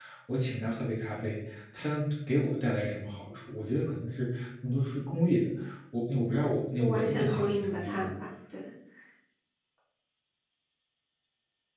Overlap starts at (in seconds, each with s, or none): 6.8 s